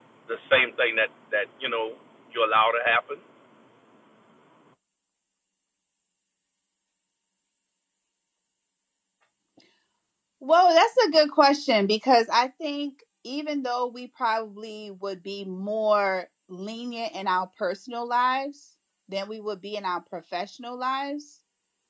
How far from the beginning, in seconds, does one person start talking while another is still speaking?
none

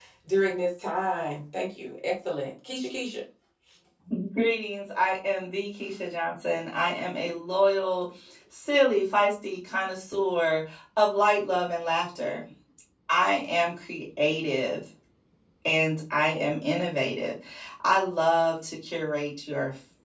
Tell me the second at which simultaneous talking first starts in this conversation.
none

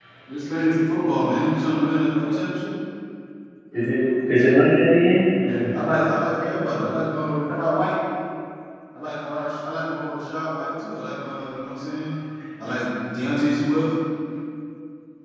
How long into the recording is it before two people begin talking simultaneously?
none

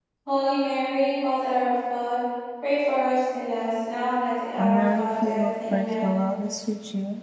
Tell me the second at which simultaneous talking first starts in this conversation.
4.6 s

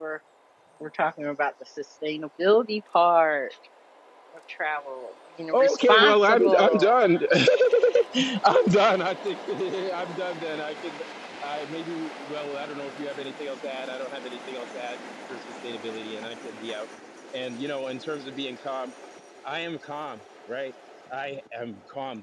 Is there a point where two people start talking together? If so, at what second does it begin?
5.5 s

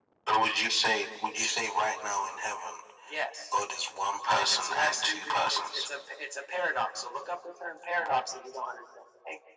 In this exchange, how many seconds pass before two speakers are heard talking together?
4.4 s

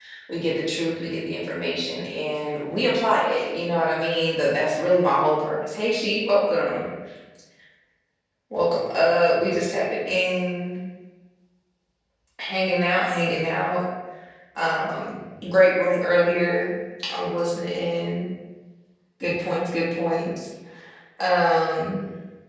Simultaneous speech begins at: none

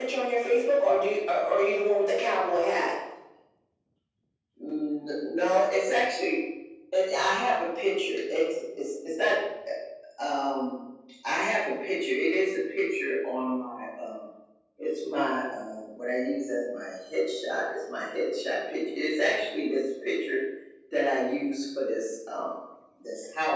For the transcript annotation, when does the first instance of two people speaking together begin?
none

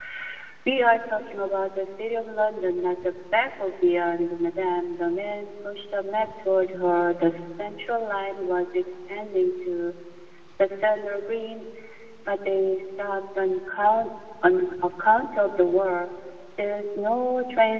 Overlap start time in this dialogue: none

